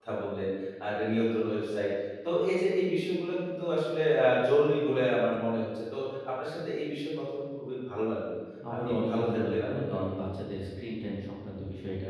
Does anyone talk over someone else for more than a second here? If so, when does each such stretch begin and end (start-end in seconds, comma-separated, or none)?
8.9-10.3